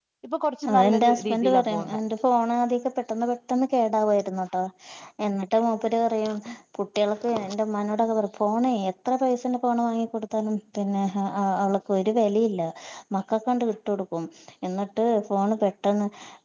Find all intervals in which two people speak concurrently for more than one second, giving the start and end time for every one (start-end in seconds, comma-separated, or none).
0.7-2.0